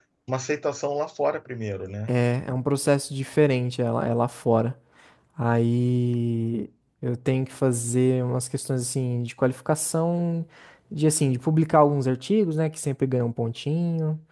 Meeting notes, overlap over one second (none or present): none